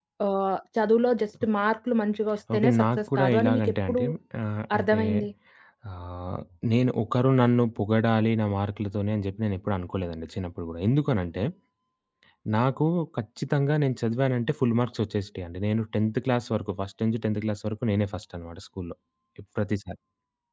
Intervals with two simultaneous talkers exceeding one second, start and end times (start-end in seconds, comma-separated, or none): 2.5-4.0